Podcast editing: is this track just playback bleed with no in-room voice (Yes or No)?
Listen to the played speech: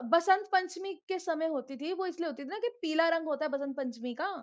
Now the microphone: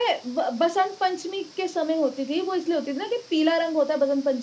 Yes